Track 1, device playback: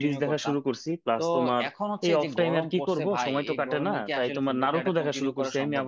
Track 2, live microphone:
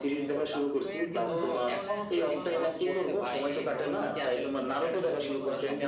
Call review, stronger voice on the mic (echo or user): echo